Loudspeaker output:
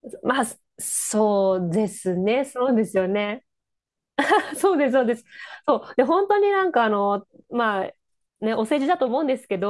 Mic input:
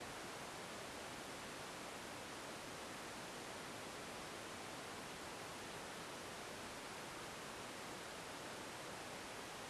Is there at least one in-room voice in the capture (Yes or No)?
No